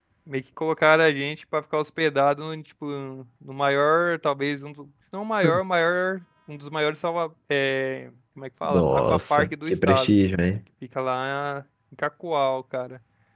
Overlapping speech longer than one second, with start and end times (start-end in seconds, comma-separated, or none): 8.6-10.2